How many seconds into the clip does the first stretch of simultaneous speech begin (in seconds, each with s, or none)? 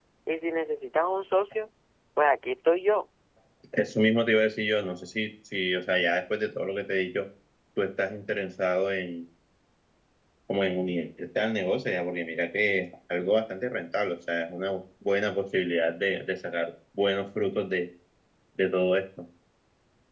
none